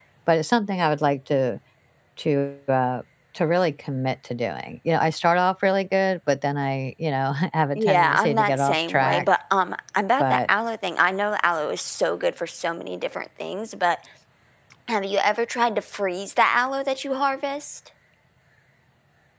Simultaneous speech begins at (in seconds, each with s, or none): 7.8 s